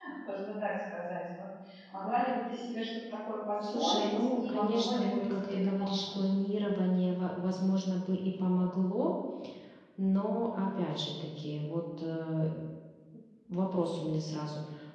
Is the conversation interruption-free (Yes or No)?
No